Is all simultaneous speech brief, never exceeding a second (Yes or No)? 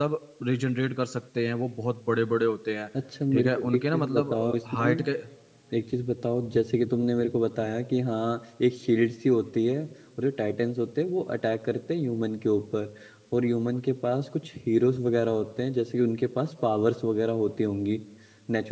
No